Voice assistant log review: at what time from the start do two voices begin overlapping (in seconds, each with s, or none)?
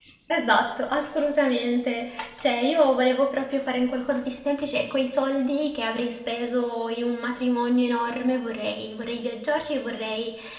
none